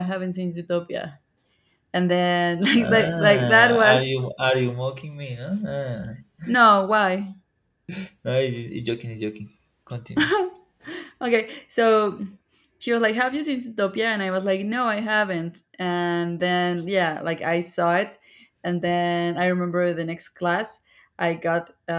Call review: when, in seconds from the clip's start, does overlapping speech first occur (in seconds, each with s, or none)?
2.8 s